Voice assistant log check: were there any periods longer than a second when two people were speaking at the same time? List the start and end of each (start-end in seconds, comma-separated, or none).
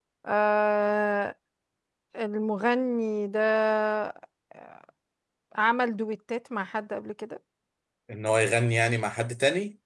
none